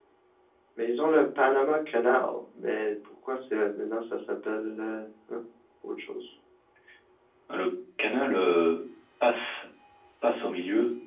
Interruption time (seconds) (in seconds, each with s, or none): none